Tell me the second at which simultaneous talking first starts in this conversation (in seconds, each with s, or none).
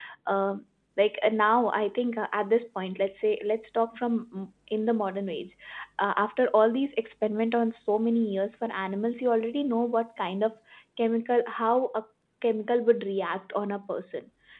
none